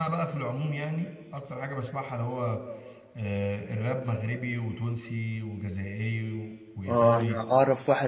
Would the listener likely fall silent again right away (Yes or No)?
No